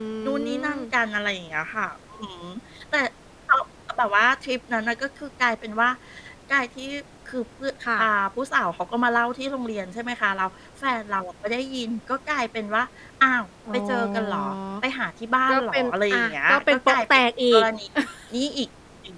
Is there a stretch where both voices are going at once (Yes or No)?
Yes